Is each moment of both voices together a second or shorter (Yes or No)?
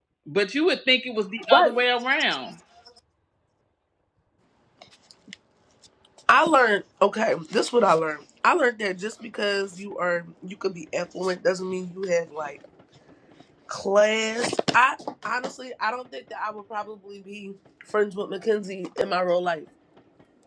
Yes